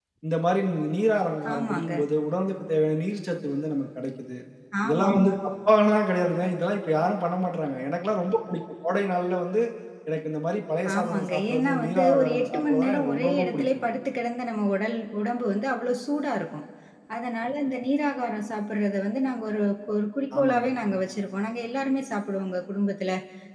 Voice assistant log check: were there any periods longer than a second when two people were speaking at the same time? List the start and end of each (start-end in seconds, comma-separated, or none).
11.0-13.8